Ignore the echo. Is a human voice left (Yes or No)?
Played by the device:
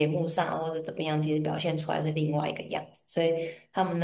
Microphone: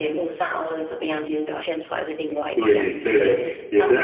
Yes